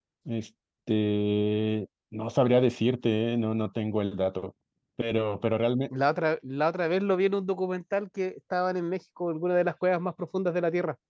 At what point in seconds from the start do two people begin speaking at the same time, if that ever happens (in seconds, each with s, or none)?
none